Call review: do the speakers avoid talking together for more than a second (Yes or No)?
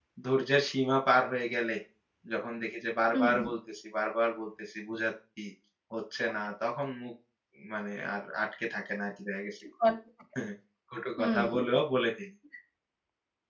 Yes